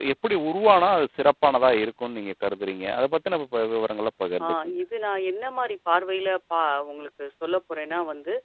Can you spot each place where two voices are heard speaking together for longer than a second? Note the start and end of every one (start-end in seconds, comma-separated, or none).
none